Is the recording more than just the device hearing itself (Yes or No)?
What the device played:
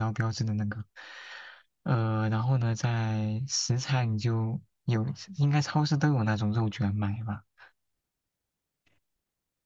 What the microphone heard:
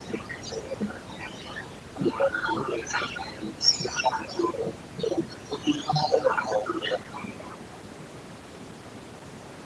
No